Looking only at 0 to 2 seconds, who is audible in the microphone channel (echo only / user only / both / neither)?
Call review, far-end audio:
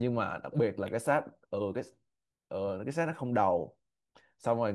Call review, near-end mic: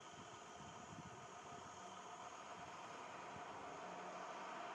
neither